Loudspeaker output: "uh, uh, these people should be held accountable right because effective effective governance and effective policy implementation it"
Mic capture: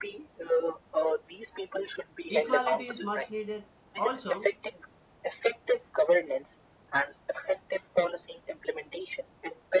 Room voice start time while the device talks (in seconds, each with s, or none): 2.3 s